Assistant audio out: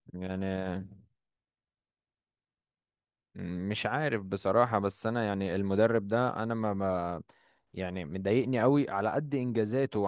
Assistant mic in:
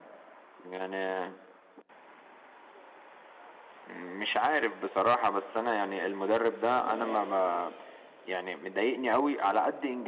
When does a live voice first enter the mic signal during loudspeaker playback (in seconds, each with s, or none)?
none